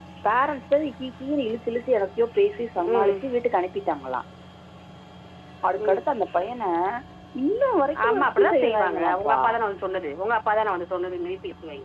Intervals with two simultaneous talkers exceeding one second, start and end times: 8.1-9.4

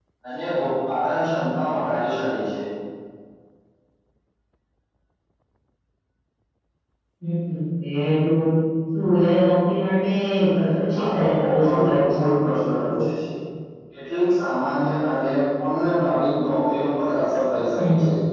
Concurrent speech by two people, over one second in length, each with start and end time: 11.0-12.2

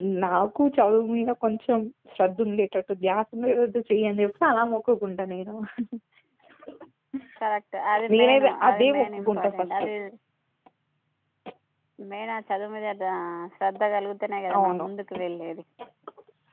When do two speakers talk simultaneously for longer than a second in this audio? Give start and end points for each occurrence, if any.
8.1-9.8

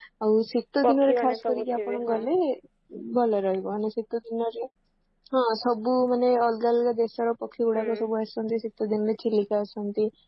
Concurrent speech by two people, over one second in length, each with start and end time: 0.8-2.2

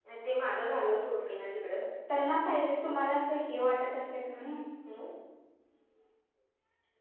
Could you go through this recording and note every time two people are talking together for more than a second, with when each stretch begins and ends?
none

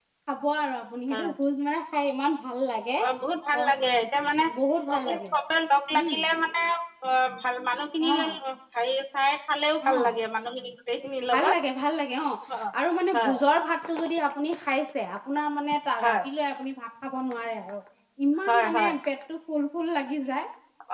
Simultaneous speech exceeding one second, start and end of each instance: none

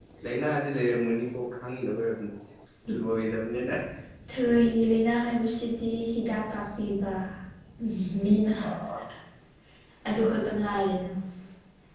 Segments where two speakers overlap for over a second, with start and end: none

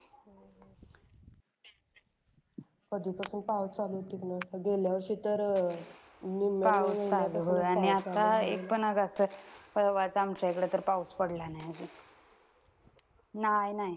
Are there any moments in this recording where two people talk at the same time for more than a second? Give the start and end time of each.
6.6-8.7

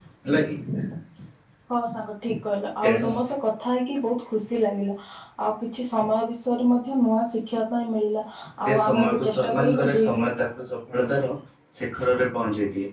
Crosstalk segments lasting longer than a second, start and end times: 8.7-10.3

